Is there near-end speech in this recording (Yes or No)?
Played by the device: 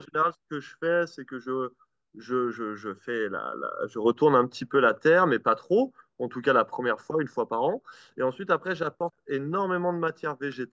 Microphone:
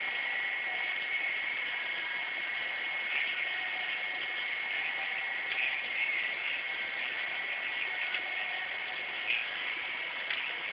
No